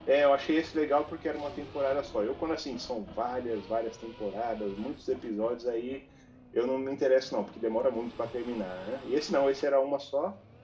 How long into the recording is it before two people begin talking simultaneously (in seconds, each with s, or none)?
none